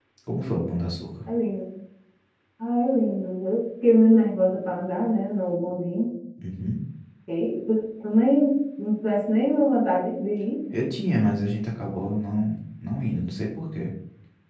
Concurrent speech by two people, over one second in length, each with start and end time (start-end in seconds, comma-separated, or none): none